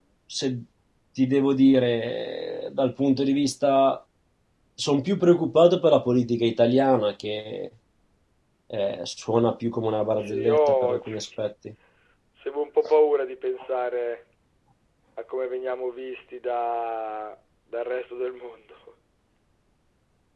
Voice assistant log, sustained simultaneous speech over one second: present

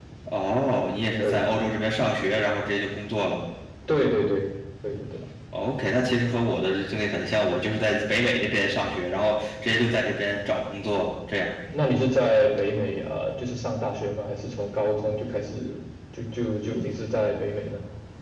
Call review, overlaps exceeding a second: none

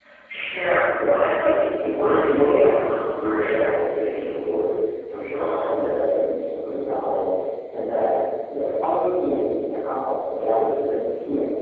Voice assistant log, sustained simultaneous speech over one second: present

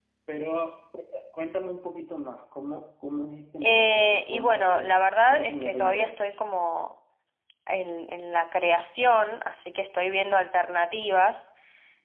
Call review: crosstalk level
present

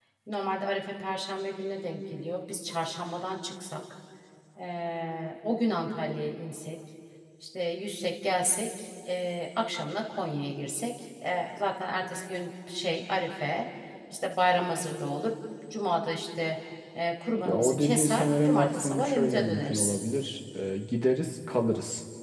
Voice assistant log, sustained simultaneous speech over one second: present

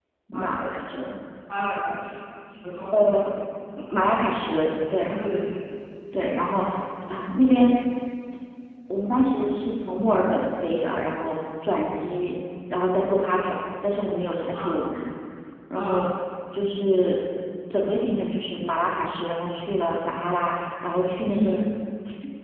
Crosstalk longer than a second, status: none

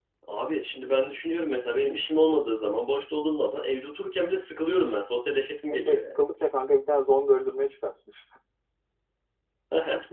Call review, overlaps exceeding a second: none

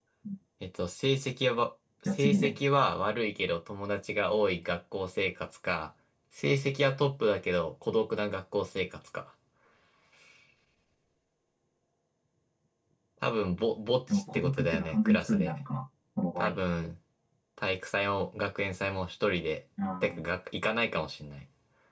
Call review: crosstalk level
present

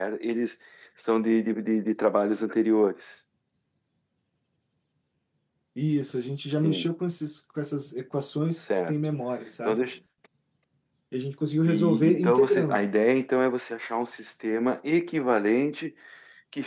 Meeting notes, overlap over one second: present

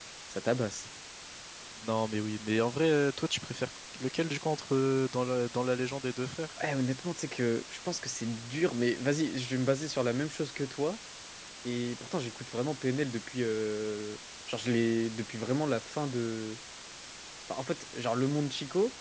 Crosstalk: none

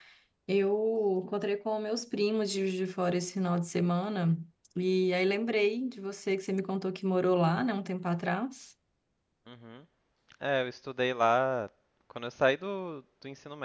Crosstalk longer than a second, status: none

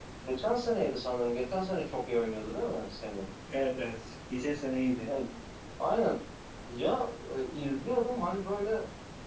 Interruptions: none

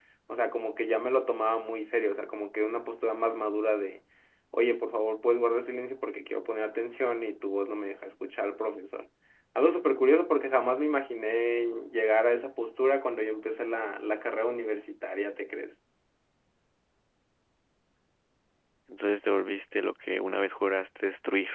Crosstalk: none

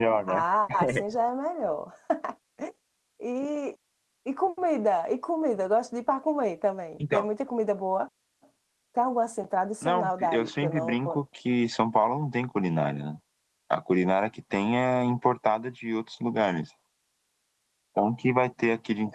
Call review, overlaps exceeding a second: present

